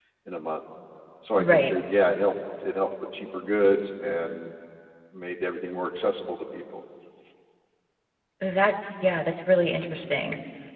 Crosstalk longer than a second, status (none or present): none